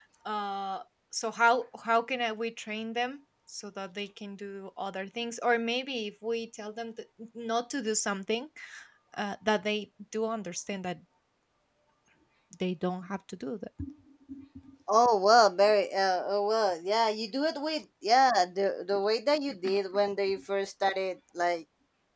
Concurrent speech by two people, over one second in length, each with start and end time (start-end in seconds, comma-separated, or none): none